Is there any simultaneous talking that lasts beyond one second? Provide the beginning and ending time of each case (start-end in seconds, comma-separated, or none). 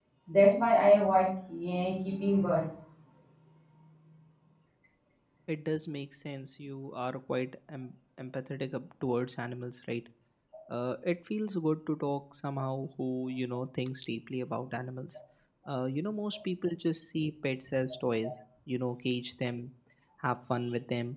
none